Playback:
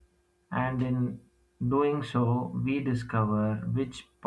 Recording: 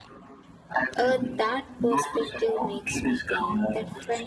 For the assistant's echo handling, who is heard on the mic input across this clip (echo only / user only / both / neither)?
both